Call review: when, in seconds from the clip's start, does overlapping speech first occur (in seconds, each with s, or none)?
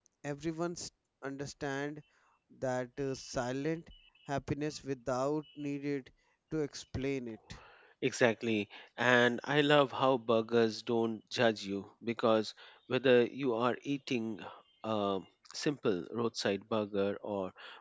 none